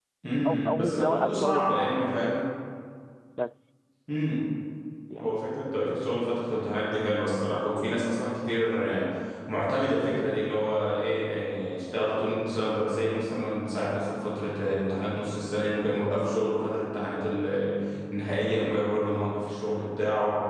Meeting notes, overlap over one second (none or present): present